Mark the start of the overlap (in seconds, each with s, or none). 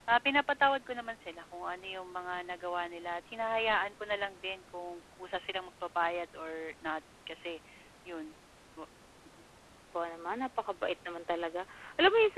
none